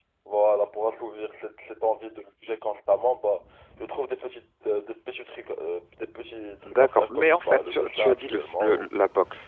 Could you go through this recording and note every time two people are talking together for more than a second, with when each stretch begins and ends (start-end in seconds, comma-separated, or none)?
6.6-8.9